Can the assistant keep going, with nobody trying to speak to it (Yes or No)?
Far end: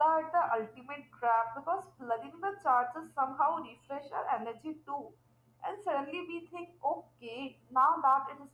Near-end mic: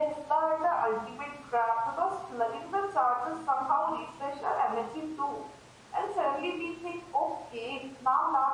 Yes